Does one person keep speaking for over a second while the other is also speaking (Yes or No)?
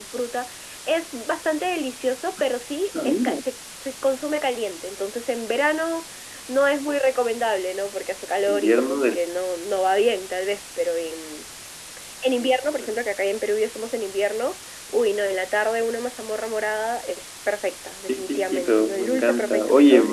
Yes